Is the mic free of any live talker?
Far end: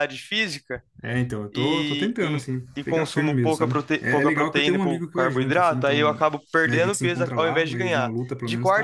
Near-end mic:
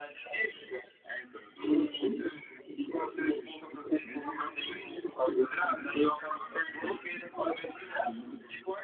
Yes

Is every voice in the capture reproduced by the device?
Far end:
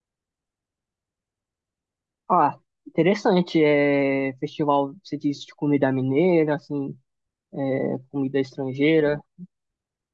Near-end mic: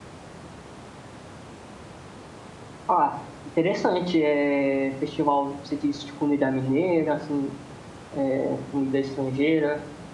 Yes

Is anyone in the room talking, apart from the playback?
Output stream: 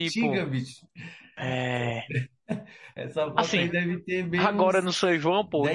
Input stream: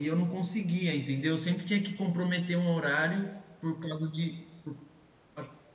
Yes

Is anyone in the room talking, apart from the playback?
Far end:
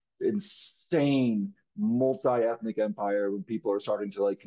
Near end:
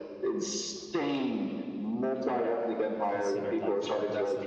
Yes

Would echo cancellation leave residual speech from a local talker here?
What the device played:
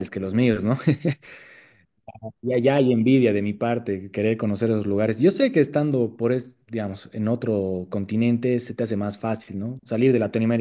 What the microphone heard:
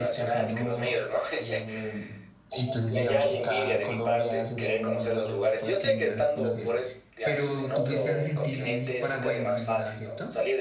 Yes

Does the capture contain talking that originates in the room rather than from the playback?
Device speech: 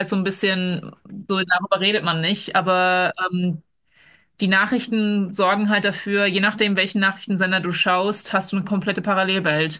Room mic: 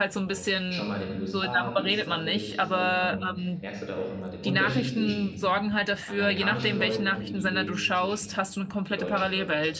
Yes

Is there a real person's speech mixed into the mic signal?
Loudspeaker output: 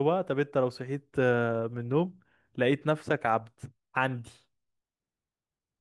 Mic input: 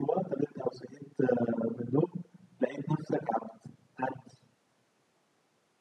No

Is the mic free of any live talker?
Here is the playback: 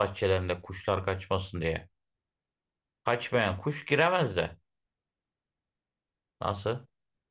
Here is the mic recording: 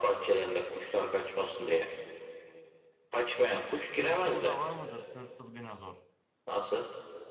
No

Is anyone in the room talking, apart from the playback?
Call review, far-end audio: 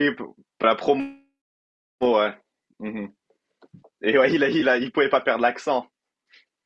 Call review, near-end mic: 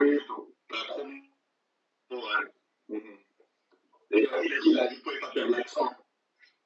No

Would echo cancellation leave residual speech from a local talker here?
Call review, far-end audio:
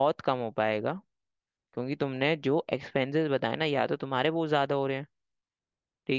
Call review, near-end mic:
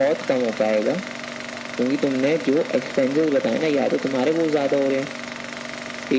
No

